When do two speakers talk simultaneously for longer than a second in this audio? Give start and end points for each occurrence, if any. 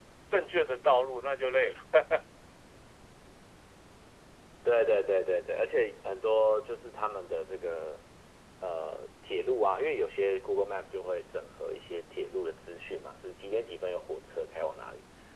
none

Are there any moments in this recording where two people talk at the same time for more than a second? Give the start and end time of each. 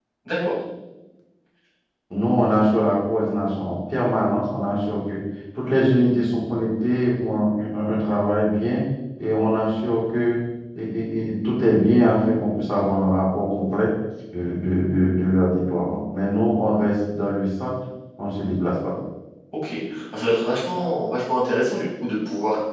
none

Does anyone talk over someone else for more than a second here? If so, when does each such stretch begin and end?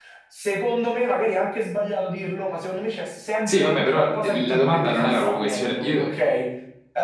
3.5-6.1

